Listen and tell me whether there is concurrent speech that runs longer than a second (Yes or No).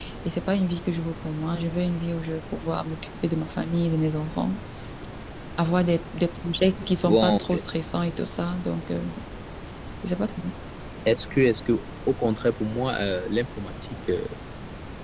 No